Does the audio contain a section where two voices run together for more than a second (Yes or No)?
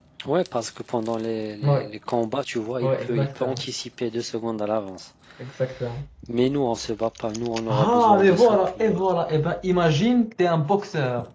Yes